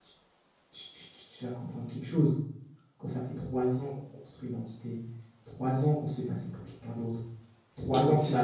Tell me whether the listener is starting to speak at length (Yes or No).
No